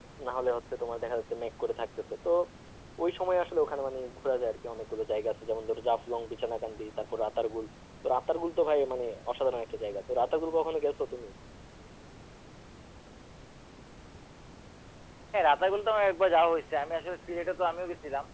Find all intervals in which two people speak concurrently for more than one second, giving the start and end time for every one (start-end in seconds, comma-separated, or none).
none